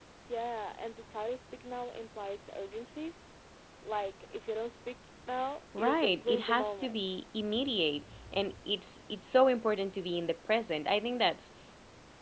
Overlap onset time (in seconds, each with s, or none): 5.7 s